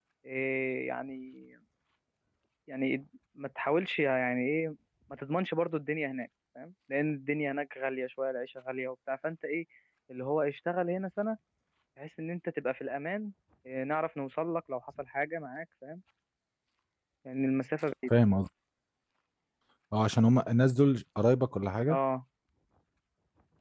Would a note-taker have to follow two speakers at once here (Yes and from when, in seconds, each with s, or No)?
No